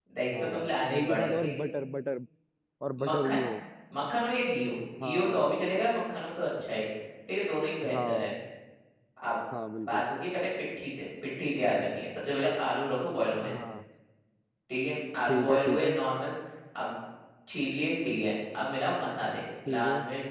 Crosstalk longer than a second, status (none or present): present